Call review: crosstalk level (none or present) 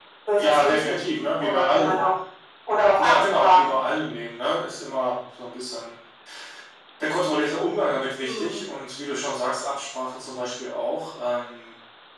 present